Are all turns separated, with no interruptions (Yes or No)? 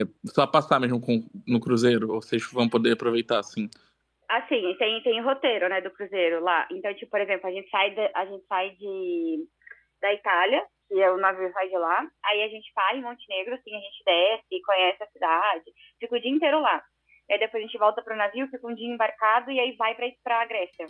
Yes